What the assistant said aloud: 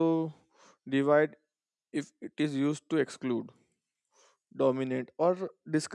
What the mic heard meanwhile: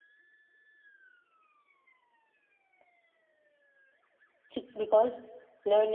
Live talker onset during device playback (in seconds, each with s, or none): 4.5 s